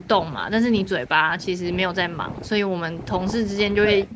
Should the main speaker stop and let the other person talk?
No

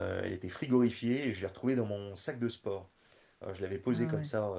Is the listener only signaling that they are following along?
Yes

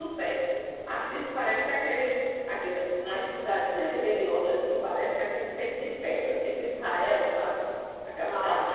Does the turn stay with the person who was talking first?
No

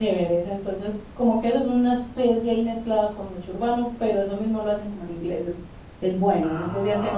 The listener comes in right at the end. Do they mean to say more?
No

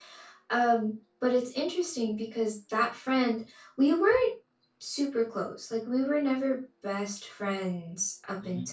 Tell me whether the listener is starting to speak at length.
No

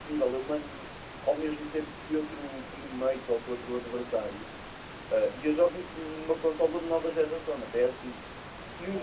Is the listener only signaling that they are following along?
Yes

